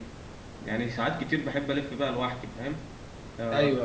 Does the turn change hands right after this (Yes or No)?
No